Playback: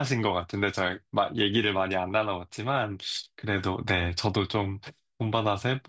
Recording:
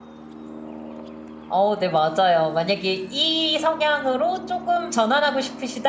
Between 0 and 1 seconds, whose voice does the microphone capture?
neither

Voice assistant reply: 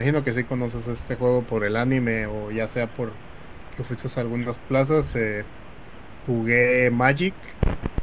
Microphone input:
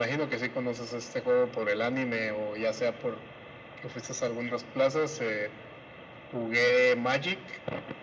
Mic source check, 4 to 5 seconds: echo only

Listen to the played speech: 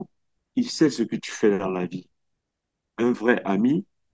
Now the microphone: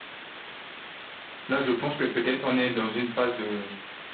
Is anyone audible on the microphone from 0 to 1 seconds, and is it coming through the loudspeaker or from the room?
neither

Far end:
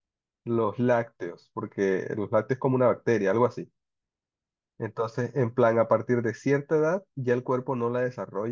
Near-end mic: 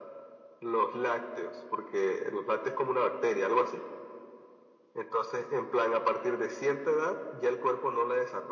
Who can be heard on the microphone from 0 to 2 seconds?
echo only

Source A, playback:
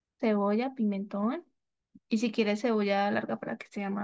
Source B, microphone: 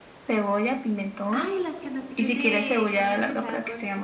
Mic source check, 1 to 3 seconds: both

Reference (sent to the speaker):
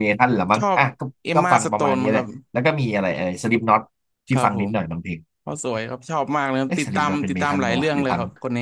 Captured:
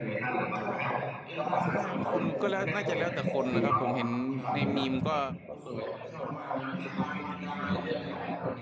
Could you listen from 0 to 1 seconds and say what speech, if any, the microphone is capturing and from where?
echo only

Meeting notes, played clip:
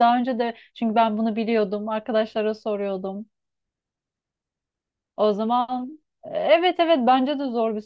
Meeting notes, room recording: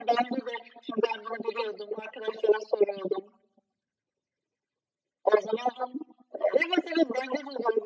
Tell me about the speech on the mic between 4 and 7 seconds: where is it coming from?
echo only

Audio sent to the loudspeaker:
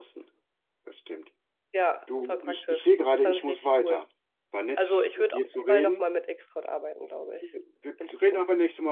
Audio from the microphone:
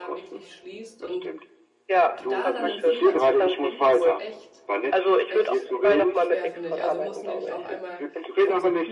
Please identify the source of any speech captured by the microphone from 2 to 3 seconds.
both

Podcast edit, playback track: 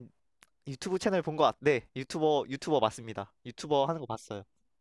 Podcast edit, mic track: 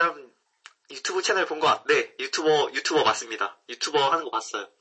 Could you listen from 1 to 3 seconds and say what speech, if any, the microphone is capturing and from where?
echo only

